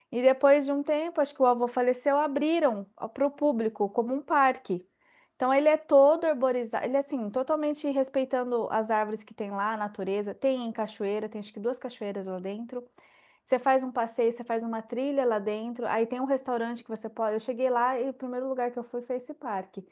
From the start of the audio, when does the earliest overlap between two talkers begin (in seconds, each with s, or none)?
none